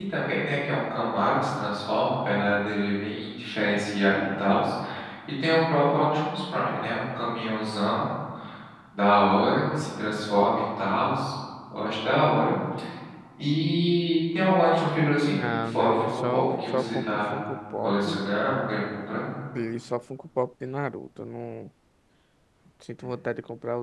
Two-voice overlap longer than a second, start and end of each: 15.2-17.2

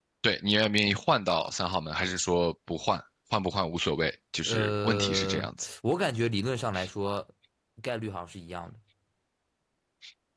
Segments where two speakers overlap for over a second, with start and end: 4.4-5.7

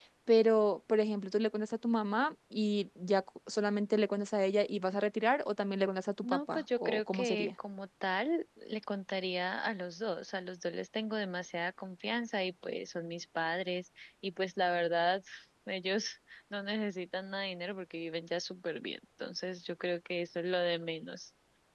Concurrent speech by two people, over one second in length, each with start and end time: 6.2-7.5

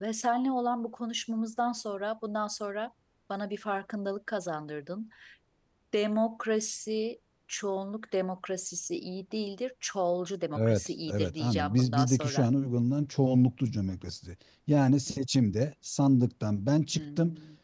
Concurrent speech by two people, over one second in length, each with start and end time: 10.6-12.4

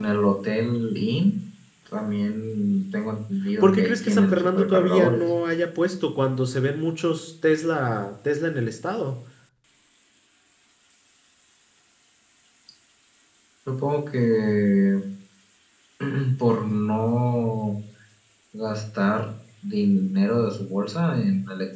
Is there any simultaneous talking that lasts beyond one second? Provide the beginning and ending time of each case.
3.6-5.2

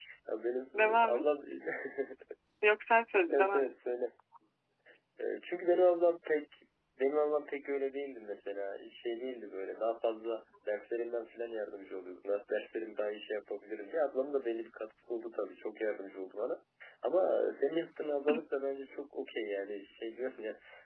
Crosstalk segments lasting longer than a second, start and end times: none

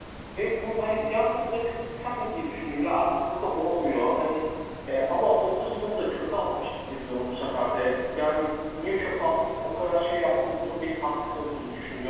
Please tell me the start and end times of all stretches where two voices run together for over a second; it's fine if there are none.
none

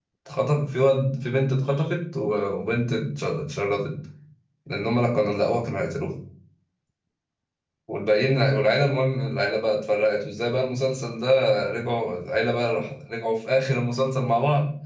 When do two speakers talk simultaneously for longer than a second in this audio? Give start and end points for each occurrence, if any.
none

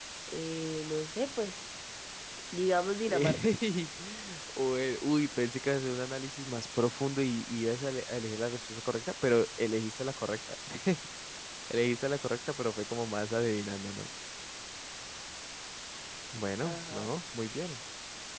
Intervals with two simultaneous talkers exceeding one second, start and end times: none

